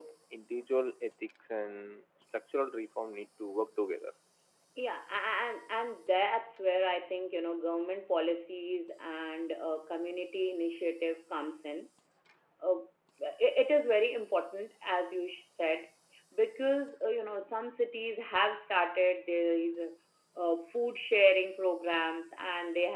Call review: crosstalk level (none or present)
none